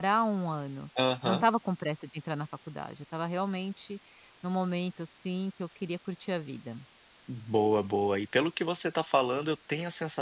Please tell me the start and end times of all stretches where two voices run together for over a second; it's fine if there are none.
none

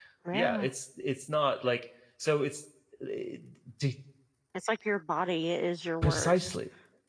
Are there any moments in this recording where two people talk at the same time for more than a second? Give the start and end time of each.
none

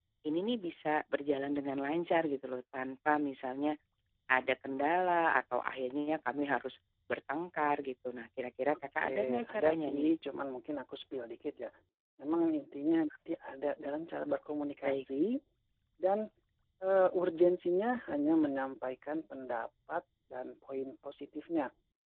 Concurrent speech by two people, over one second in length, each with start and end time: 8.7-10.1

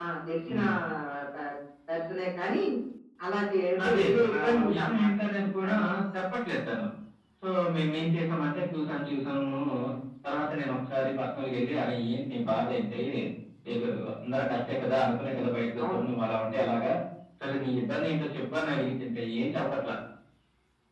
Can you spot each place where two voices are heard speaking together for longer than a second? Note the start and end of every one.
3.9-5.1

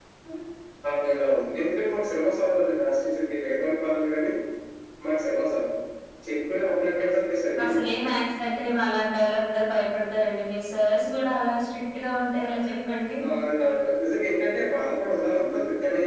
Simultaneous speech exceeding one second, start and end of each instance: none

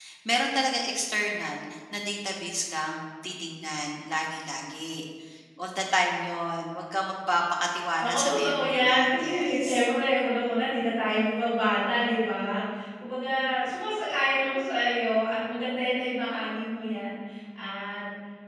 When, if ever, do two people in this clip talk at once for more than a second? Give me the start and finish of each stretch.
8.0-9.9

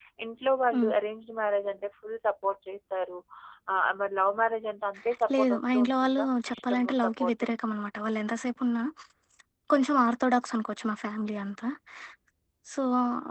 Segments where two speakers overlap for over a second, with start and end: 5.4-7.5

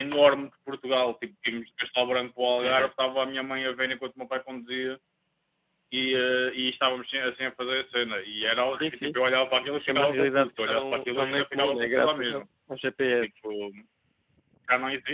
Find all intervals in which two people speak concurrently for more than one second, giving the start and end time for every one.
9.7-12.4

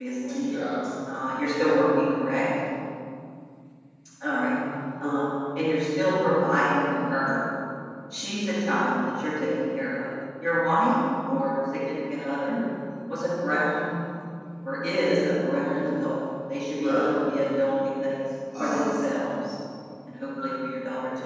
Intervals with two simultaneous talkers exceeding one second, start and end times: none

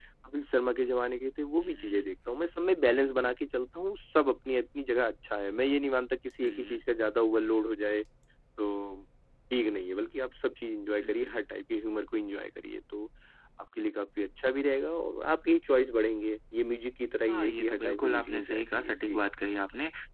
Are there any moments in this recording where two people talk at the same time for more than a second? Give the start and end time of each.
17.3-19.2

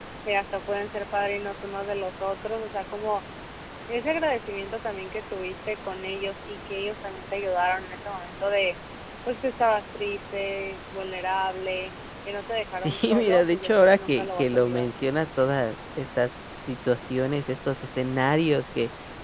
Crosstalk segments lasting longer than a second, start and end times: 12.8-14.9

